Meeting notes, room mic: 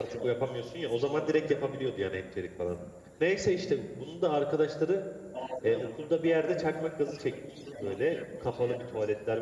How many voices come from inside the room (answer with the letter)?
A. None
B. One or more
B